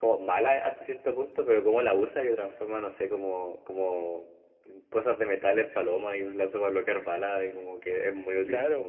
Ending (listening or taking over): taking over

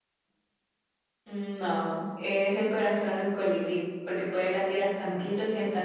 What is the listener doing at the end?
listening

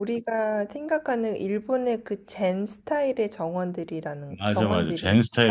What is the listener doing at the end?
taking over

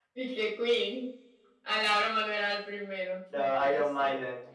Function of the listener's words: taking over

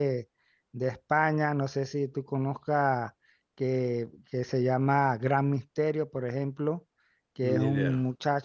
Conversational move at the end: listening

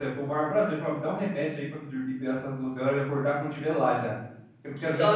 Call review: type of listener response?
taking over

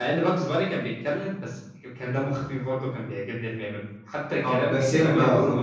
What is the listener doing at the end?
taking over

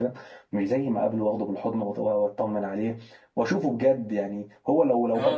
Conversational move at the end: taking over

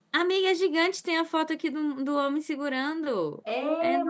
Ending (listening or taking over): taking over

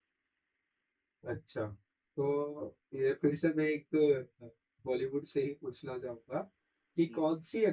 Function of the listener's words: listening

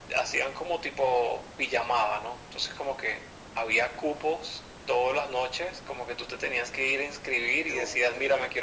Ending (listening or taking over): listening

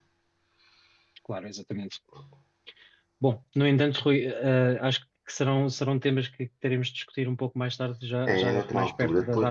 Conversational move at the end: taking over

